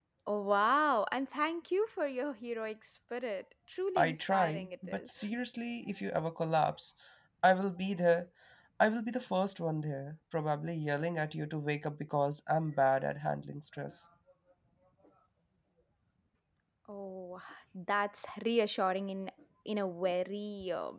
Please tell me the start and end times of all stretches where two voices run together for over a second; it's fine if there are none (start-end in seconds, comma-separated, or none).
4.0-5.2